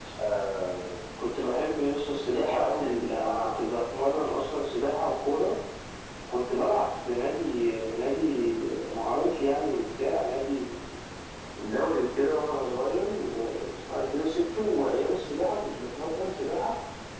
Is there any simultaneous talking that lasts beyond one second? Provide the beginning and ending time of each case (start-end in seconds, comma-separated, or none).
2.2-3.6